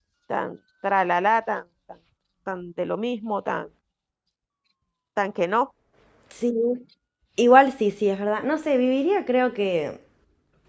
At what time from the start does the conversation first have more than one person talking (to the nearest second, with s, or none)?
none